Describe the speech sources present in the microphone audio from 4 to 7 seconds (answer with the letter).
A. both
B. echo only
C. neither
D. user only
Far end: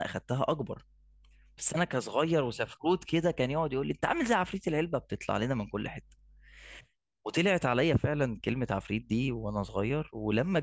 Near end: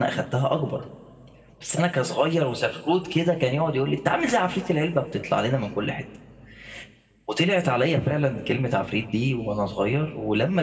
B